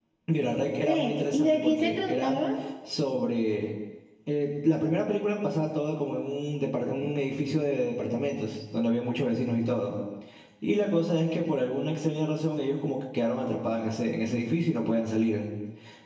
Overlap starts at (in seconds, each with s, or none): 0.8 s